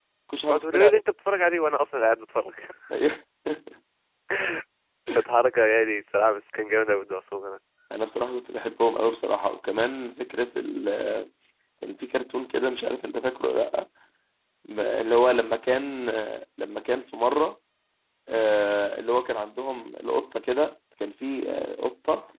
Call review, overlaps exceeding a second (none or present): none